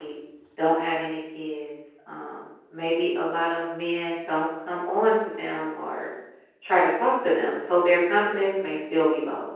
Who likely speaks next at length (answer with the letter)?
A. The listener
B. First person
B